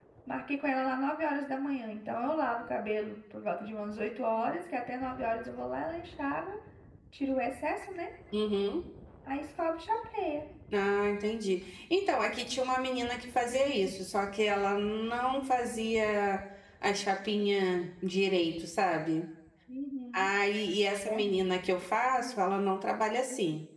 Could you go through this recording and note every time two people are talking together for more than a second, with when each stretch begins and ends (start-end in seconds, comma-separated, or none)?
none